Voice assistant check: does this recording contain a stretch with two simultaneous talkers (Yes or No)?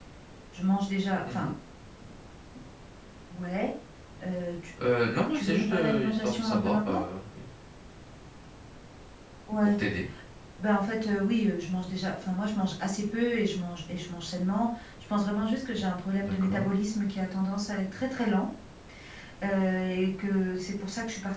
Yes